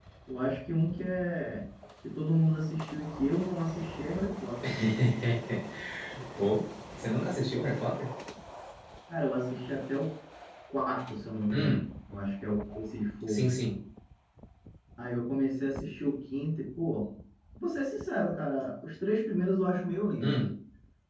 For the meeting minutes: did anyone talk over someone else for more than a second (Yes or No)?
No